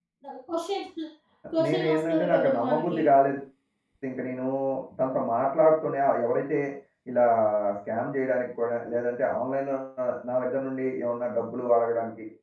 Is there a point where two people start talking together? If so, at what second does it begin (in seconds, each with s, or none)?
1.6 s